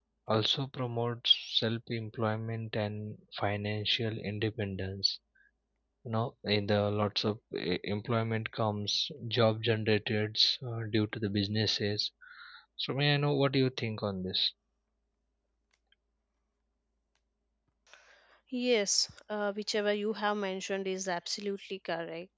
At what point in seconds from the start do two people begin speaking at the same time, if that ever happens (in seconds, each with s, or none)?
none